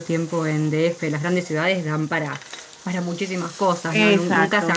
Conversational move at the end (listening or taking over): taking over